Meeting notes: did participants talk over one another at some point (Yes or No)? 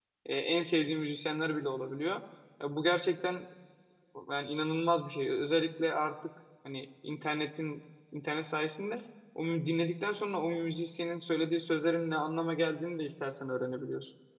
No